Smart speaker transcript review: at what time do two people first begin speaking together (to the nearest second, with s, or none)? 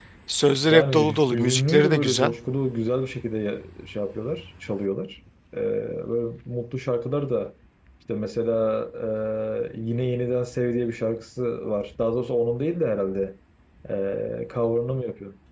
1 s